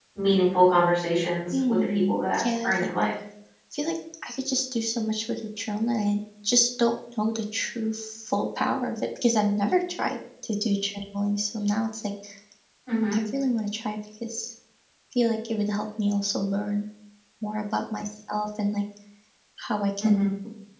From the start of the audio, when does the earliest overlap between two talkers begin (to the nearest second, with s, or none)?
2 s